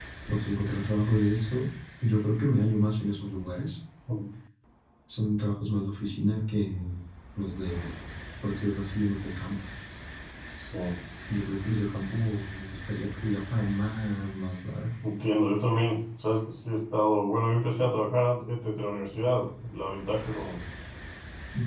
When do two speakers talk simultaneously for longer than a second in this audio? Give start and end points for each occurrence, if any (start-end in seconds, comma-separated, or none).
none